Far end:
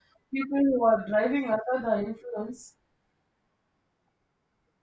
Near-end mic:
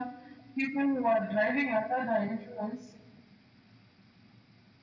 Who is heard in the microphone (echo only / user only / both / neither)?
echo only